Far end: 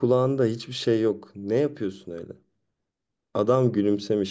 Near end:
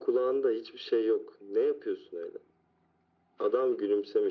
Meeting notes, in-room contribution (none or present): none